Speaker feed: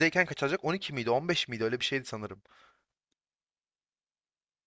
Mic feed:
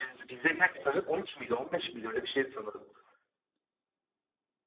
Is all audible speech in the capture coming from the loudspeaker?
Yes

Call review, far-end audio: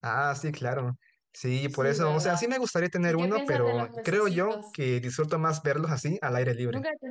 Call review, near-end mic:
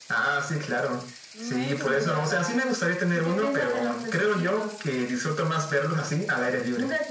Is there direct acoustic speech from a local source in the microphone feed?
Yes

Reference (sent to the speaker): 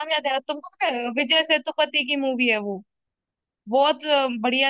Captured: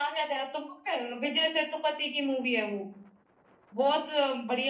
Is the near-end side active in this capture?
No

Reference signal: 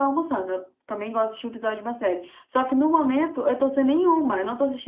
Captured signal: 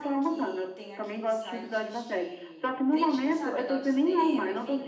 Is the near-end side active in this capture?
Yes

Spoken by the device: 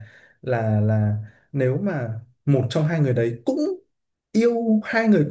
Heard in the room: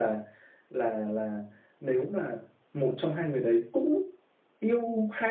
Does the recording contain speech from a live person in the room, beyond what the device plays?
No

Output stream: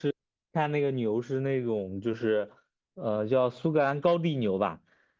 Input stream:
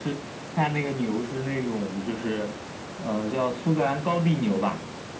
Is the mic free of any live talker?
Yes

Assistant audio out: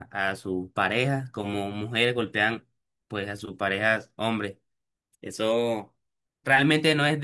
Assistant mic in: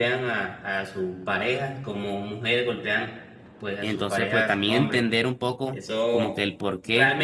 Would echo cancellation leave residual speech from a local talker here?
Yes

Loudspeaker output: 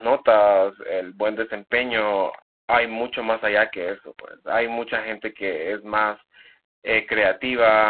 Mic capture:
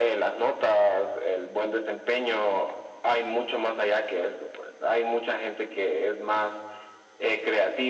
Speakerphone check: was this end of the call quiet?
Yes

